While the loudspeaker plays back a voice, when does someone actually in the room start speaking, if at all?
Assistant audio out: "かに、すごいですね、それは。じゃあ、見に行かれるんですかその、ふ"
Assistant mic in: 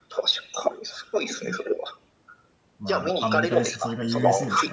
2.8 s

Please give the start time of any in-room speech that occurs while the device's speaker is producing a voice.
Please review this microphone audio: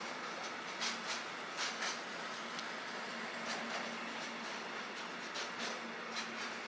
none

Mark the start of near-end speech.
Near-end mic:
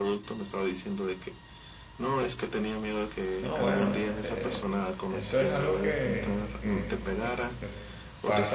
3.4 s

